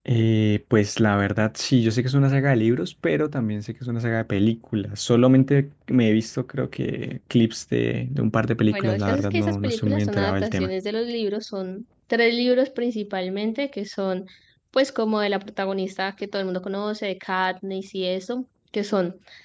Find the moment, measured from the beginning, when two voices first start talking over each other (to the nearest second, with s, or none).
9 s